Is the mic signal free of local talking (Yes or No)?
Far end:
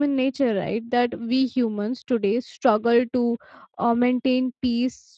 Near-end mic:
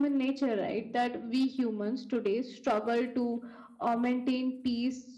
Yes